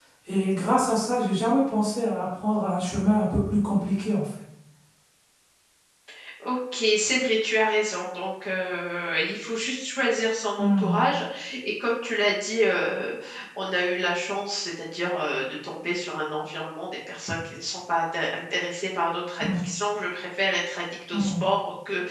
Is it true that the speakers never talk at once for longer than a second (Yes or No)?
Yes